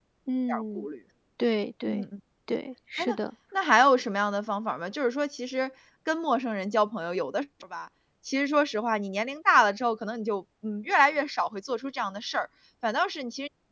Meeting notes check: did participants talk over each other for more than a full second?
No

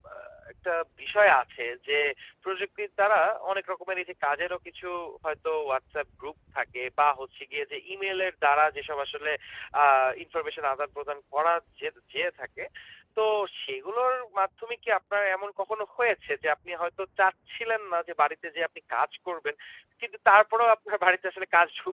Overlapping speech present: No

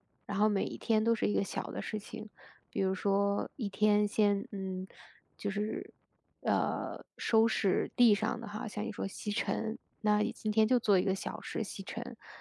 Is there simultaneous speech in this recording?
No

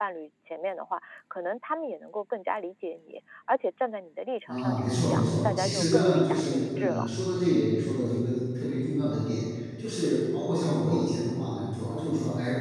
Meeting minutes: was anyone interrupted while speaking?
Yes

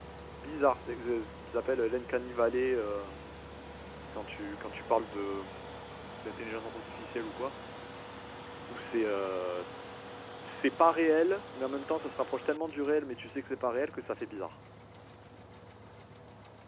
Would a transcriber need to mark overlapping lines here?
No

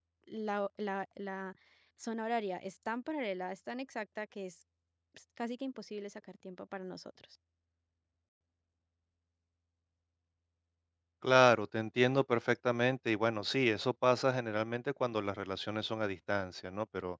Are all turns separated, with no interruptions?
Yes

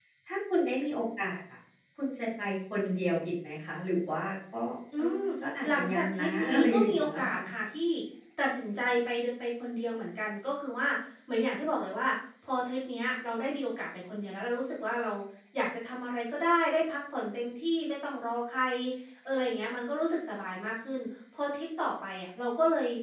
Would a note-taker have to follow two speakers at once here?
Yes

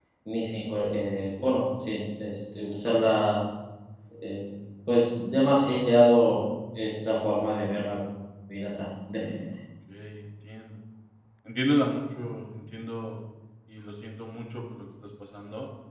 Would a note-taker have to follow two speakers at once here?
No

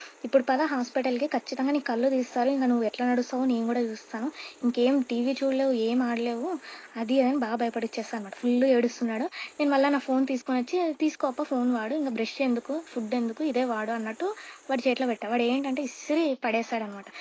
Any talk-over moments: No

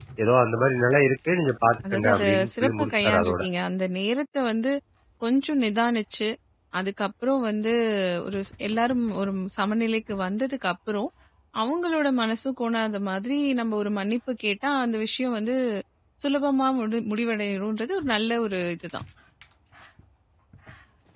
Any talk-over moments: Yes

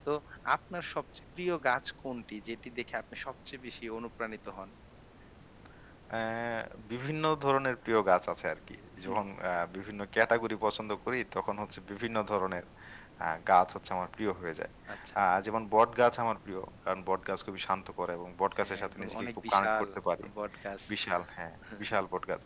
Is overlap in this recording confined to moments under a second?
No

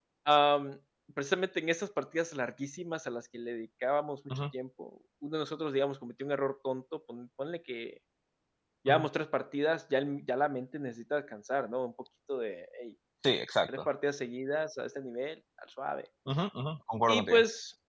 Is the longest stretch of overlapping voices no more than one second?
Yes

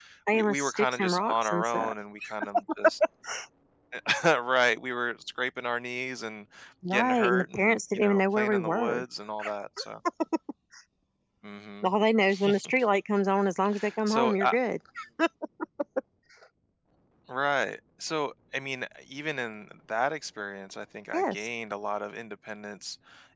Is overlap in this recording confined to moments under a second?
No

